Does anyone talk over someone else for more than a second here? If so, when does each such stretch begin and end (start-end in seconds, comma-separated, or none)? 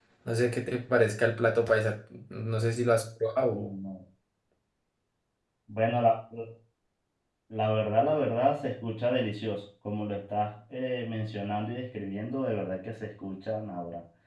none